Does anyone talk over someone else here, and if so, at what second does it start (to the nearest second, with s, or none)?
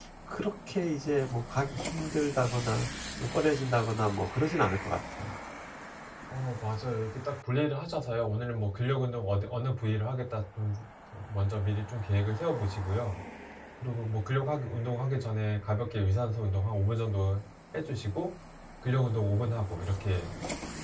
none